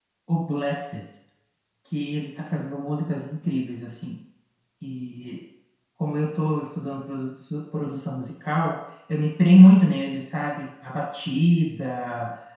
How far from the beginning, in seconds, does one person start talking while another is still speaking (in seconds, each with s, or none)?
none